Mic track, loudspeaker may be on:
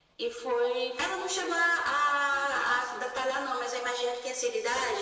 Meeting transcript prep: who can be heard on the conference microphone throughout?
echo only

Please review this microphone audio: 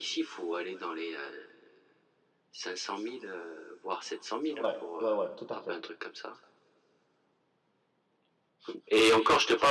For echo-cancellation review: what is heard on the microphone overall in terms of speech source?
both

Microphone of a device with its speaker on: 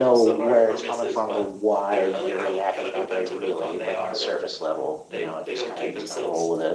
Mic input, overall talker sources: both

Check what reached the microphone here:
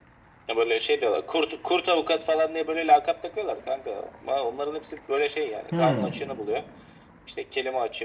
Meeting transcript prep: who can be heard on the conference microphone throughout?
both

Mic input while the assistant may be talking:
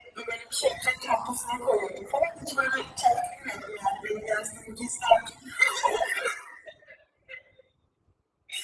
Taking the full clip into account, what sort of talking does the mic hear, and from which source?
echo only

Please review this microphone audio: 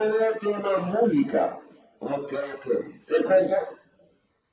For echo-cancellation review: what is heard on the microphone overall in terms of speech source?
echo only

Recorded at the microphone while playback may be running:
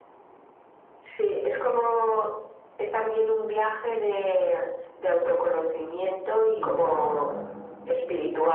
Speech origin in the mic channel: both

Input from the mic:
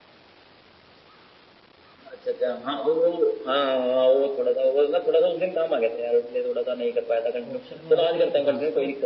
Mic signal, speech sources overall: both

